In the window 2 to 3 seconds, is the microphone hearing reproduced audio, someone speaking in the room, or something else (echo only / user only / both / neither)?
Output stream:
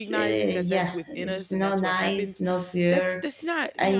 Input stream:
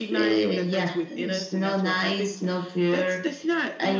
echo only